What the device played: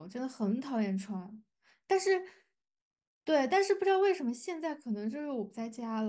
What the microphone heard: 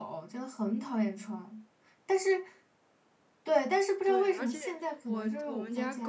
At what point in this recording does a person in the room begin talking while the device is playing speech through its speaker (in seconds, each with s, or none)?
4.0 s